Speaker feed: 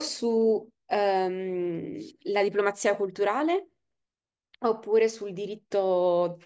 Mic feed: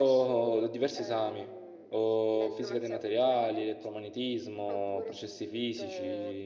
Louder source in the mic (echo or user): user